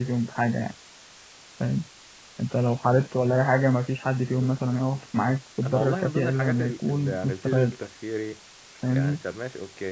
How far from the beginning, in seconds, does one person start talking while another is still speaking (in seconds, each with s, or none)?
5.6 s